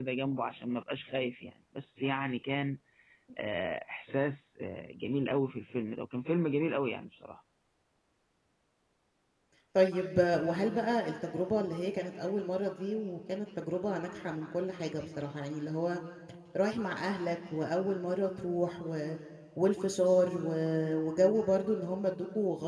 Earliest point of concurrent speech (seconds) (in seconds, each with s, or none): none